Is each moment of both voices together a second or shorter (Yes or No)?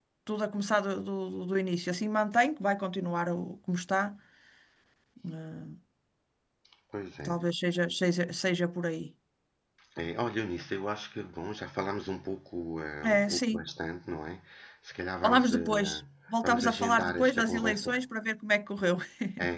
No